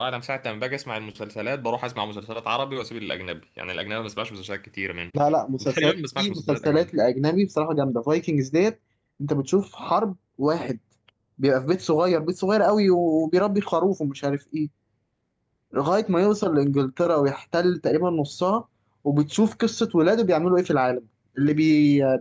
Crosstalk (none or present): present